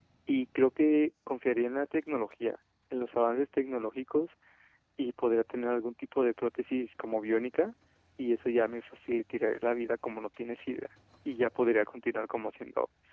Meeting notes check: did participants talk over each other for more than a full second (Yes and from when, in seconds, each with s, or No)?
No